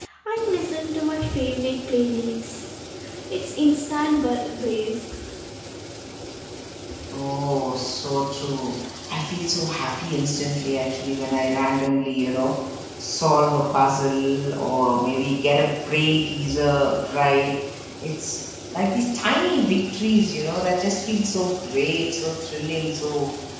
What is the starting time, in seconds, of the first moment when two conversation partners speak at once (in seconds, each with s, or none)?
none